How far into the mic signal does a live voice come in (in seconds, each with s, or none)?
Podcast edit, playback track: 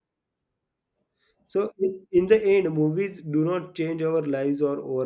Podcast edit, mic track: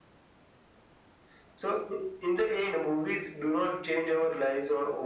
none